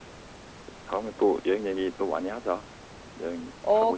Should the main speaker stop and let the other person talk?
Yes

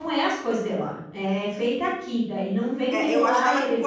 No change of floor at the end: No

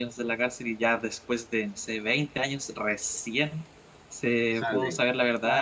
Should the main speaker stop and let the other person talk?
No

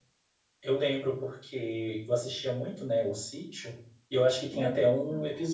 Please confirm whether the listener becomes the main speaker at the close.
No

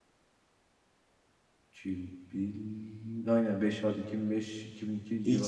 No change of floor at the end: No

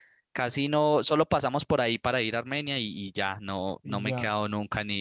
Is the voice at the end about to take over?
No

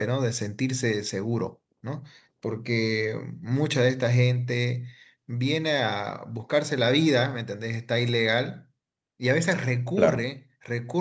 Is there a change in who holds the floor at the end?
No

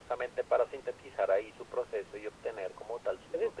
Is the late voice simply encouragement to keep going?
No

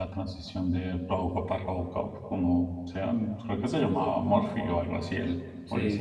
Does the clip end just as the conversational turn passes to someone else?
Yes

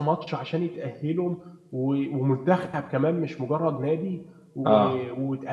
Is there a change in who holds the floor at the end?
No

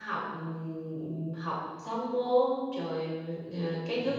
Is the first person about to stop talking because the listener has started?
No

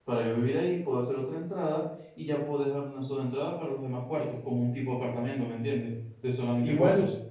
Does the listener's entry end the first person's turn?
Yes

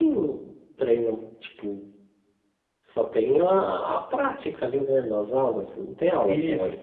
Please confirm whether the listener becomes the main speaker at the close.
Yes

